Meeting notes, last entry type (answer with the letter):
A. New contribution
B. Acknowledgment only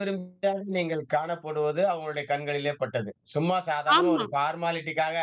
B